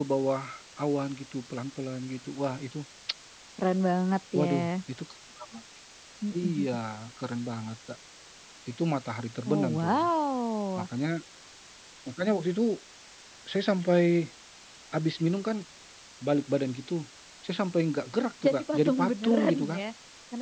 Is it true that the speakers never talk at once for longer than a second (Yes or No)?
No